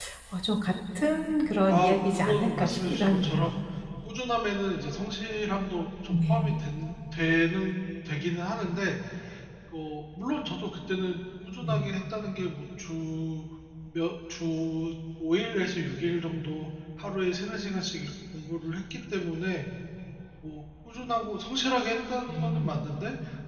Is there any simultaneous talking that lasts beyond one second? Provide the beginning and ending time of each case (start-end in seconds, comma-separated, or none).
1.7-3.5